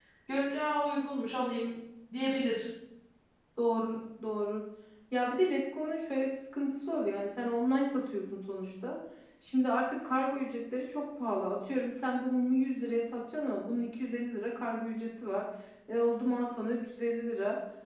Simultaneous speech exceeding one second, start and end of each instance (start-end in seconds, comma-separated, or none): none